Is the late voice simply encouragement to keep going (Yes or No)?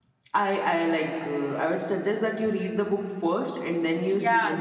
No